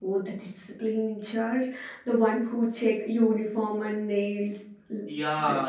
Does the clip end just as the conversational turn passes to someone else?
Yes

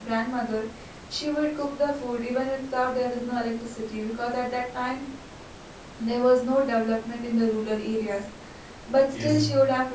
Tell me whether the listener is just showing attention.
Yes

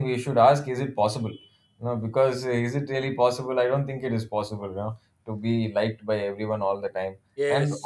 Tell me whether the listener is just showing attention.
Yes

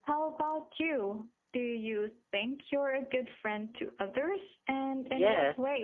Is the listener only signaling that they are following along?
No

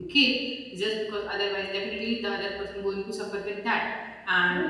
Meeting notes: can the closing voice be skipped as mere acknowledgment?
Yes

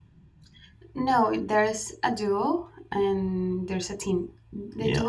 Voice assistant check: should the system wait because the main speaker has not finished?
Yes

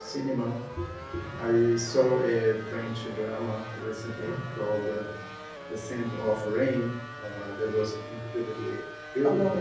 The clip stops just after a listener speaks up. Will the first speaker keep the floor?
No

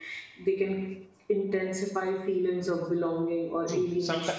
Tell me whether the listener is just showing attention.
No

